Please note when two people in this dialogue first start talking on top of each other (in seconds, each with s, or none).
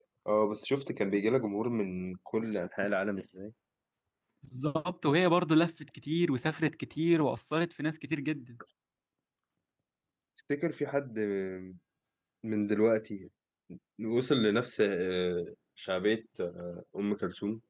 none